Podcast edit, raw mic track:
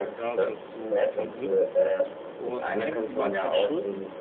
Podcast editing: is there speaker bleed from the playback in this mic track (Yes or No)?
Yes